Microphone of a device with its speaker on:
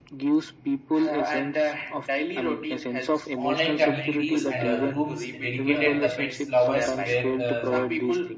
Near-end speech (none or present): present